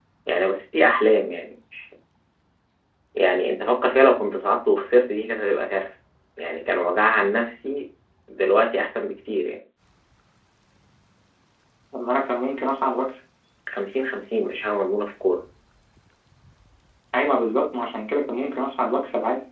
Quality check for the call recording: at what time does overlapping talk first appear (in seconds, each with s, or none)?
none